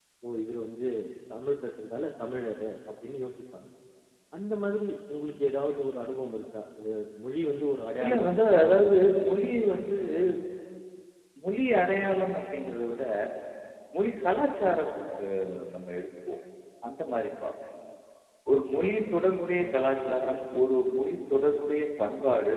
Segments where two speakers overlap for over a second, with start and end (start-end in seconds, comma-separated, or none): 8.0-9.2